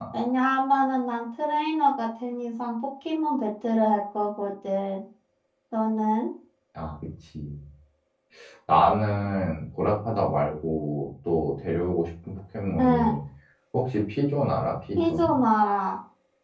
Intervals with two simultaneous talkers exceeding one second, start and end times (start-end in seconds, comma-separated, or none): none